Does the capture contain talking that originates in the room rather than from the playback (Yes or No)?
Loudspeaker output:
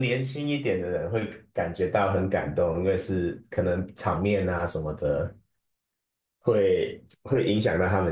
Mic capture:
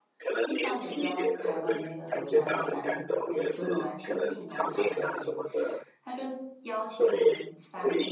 Yes